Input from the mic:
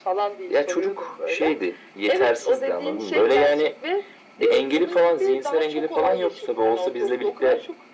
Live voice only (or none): none